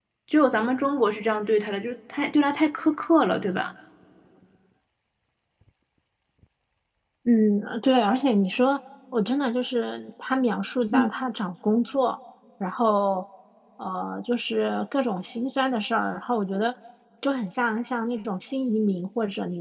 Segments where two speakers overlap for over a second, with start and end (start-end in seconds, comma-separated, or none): none